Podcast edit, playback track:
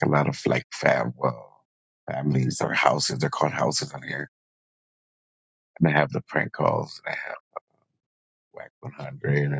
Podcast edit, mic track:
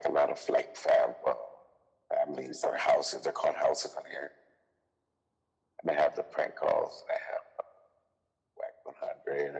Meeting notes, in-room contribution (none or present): none